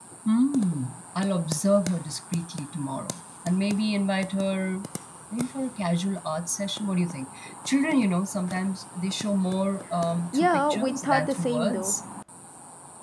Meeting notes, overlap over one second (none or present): present